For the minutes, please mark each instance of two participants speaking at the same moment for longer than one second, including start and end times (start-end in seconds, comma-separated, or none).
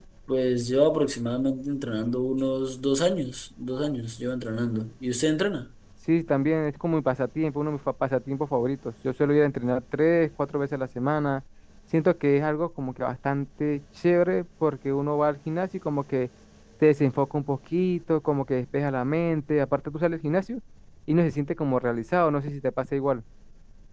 none